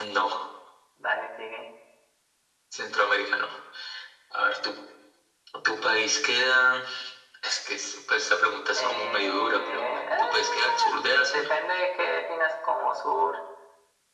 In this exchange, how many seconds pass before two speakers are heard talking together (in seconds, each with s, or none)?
8.7 s